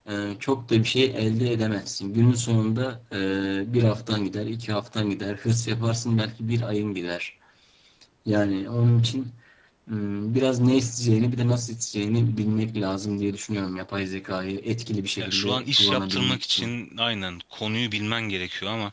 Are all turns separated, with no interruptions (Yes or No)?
No